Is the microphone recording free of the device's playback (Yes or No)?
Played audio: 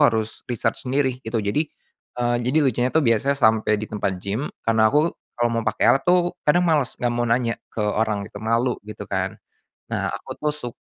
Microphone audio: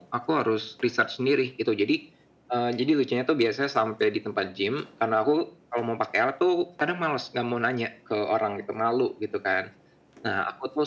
No